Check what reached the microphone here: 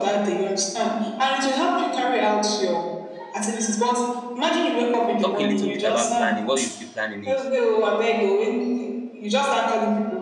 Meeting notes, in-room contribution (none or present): present